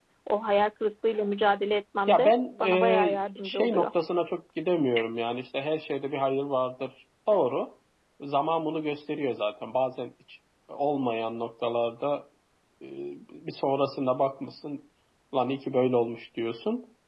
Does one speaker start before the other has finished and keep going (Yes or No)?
Yes